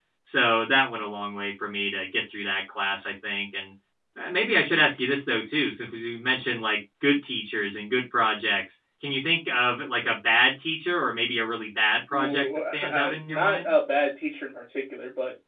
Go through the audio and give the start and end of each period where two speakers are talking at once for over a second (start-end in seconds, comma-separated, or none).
12.1-13.7